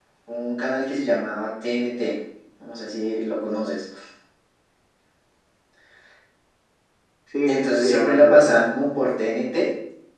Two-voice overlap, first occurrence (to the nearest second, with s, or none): 7 s